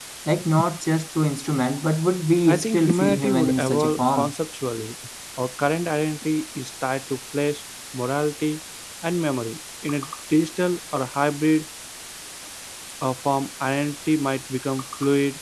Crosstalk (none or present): present